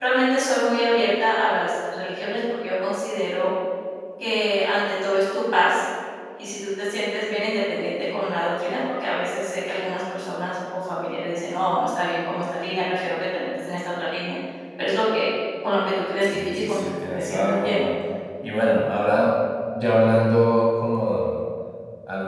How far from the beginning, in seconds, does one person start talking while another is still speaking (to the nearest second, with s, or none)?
16 s